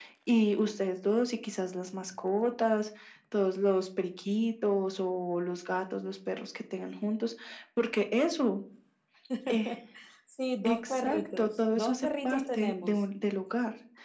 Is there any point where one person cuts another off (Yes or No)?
Yes